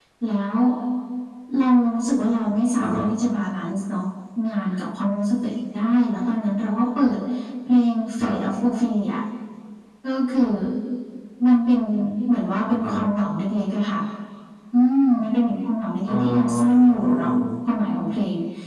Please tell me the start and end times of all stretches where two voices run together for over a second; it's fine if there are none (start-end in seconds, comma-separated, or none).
16.1-17.3